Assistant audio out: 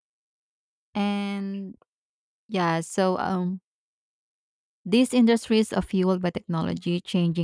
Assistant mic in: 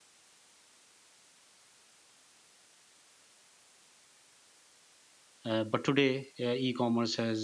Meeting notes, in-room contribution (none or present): present